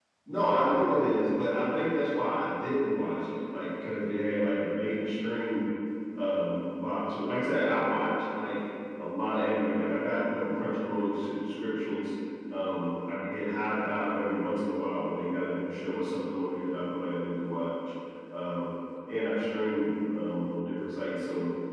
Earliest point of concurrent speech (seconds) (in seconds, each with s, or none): none